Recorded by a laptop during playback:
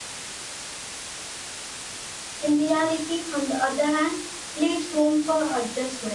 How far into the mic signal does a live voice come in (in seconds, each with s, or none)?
2.4 s